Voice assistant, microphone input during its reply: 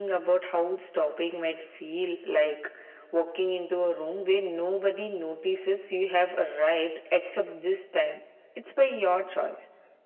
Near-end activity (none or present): none